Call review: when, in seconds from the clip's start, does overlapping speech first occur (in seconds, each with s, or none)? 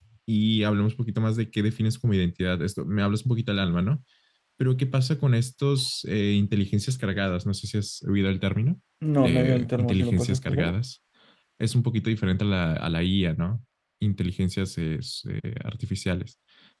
9.2 s